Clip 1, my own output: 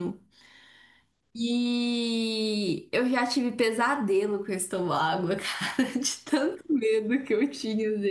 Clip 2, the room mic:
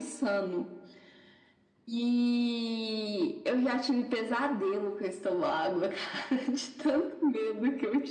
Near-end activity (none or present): none